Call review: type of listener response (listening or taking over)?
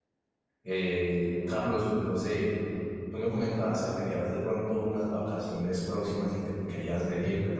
listening